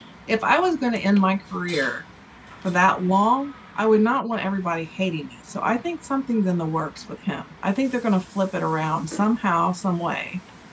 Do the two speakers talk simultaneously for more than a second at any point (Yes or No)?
No